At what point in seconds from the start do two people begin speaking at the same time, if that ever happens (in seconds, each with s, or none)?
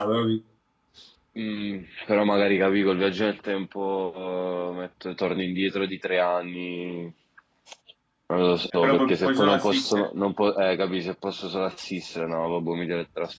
8.7 s